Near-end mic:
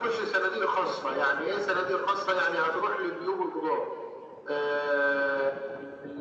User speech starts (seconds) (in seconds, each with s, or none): none